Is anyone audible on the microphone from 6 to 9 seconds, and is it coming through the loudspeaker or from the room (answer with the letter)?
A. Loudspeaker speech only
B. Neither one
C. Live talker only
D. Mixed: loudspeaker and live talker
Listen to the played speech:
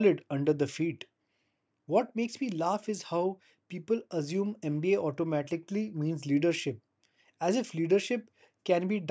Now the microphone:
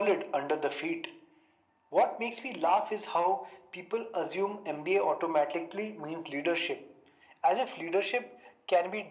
A